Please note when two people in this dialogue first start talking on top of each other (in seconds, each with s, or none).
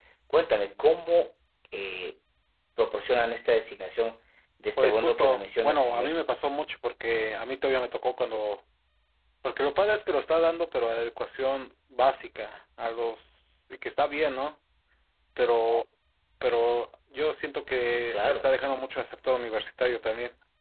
4.8 s